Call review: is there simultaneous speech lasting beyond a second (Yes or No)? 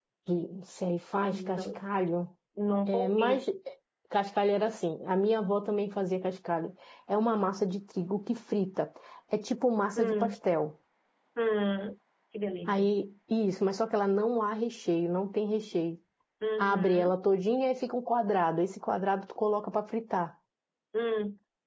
No